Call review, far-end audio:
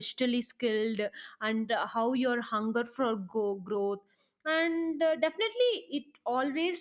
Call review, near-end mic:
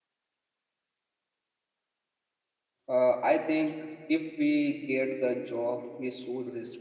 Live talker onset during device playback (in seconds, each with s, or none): 2.9 s